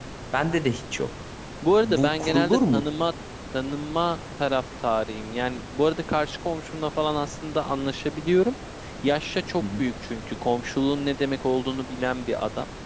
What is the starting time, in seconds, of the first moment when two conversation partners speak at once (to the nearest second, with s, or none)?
2 s